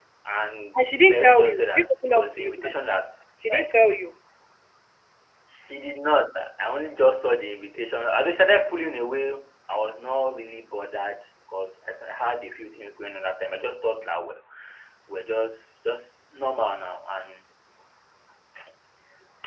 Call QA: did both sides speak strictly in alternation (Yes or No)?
No